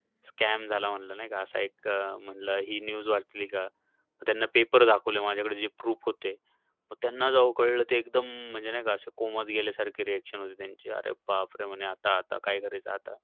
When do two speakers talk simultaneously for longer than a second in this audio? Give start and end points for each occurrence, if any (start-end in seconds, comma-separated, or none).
none